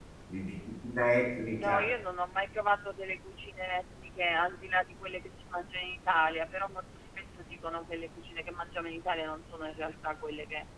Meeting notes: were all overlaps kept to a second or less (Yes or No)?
Yes